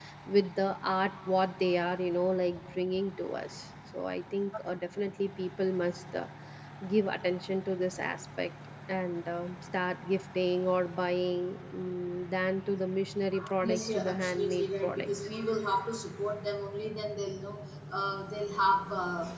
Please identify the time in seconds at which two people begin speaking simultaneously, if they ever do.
13.6 s

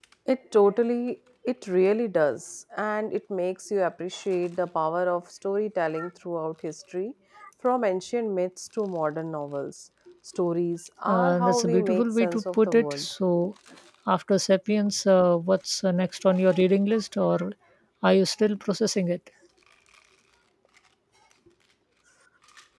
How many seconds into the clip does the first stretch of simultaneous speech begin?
11.1 s

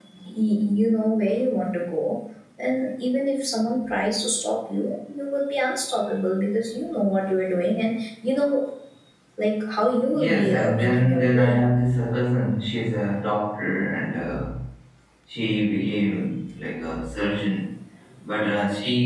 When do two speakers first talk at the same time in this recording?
10.1 s

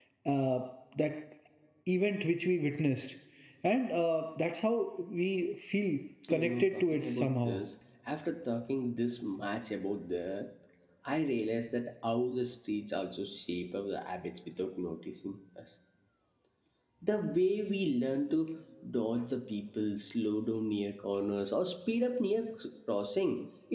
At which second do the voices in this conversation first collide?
6.2 s

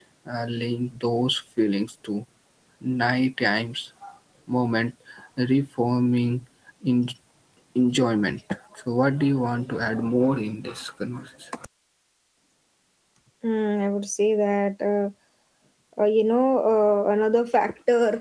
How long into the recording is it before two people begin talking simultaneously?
none

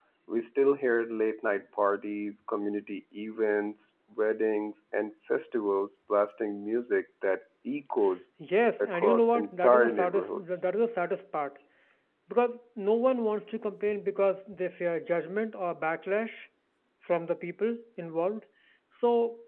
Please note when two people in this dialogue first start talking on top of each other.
8.8 s

